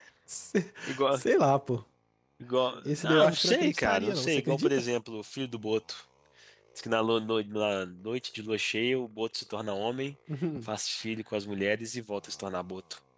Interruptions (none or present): present